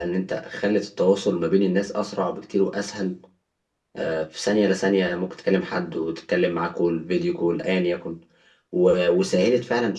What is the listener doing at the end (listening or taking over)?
listening